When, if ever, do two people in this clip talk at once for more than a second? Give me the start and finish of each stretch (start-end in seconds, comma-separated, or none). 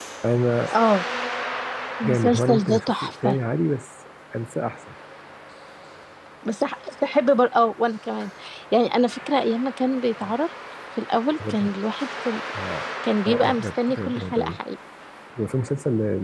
2.0-3.4, 13.3-14.5